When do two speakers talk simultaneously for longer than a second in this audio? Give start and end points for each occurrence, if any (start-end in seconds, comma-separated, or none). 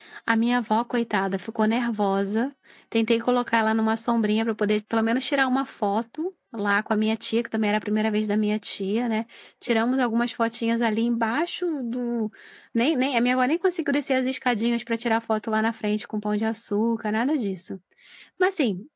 none